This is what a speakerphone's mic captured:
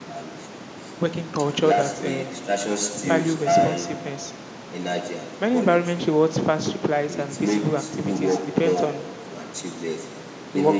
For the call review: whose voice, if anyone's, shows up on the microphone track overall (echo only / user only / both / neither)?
both